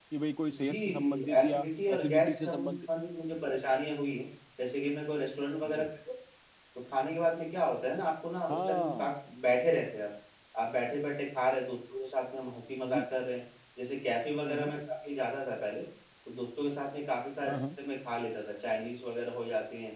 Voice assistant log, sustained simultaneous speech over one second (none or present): present